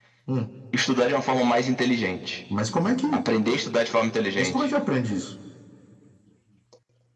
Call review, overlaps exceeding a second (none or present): none